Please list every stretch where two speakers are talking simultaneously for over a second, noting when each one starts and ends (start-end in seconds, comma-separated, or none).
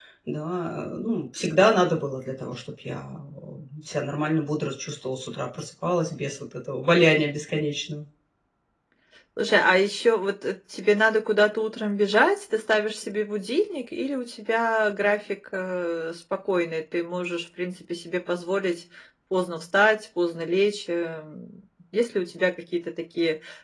none